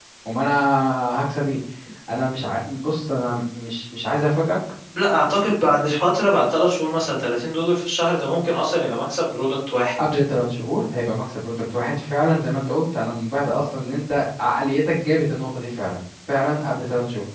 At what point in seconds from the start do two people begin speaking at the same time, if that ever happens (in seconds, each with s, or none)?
none